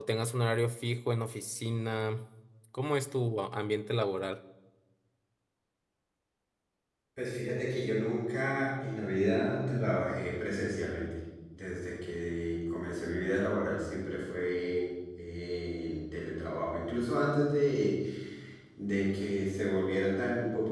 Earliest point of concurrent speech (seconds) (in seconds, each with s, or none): none